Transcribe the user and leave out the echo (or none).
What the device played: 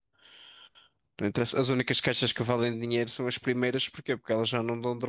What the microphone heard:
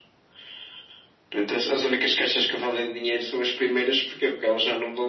none